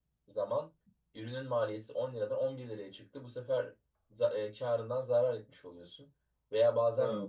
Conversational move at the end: listening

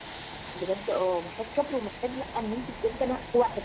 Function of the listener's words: listening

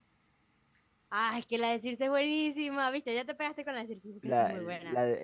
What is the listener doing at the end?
taking over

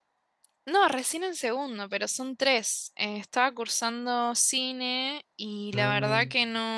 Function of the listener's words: listening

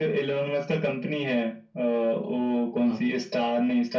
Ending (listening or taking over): listening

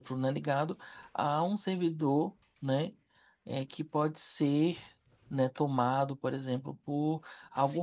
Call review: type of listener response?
listening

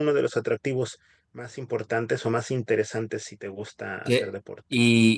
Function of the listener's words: taking over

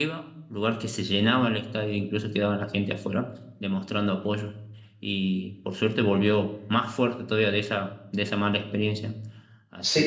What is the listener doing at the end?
taking over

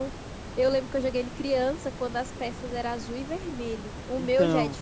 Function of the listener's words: listening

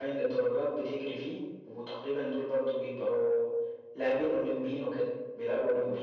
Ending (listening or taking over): taking over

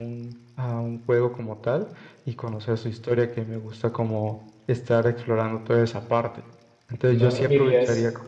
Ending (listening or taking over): taking over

